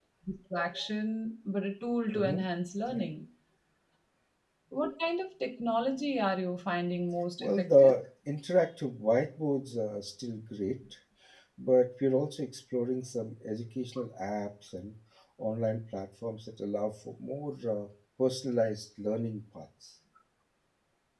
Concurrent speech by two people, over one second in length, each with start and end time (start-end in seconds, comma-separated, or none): none